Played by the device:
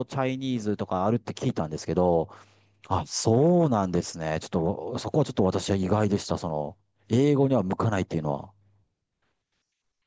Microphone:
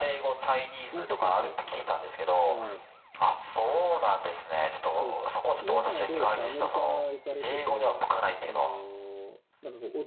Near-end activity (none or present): present